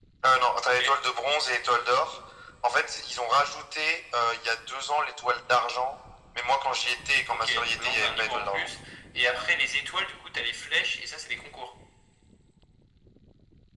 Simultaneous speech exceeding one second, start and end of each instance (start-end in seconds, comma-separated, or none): 7.3-8.7